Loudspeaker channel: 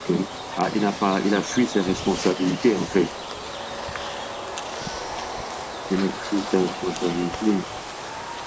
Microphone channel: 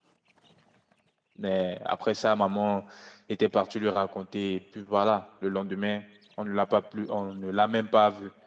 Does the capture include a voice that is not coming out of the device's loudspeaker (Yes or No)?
Yes